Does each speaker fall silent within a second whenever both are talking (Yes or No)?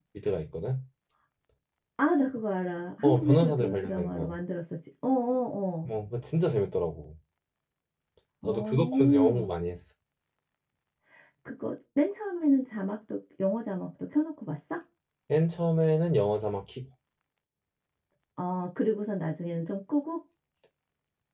No